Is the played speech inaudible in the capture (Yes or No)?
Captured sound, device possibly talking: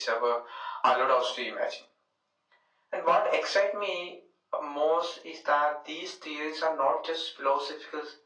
No